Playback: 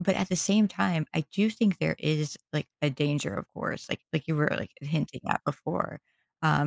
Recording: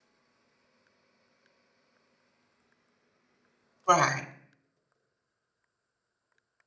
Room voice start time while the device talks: 3.9 s

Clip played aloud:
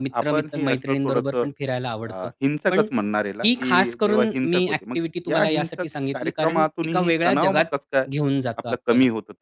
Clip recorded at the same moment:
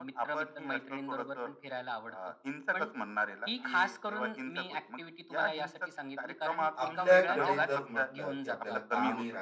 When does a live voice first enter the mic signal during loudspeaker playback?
6.8 s

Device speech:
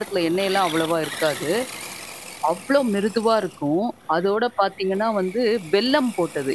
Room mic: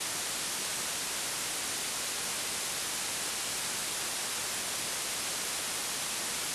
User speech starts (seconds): none

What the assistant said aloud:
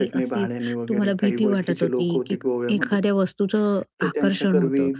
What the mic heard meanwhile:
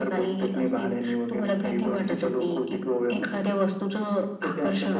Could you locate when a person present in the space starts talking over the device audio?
none

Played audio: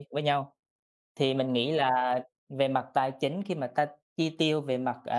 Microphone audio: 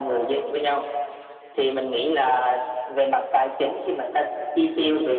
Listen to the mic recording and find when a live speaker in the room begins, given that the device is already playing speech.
none

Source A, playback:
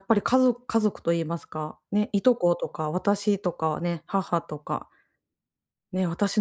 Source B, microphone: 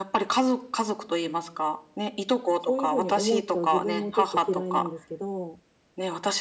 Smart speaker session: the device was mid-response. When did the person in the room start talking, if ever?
2.6 s

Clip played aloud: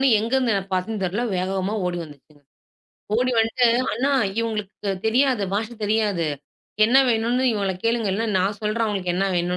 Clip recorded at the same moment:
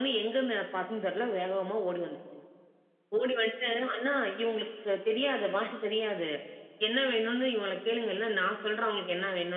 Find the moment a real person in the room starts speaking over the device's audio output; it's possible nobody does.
none

